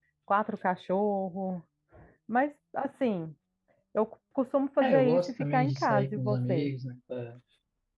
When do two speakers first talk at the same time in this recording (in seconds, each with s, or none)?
4.8 s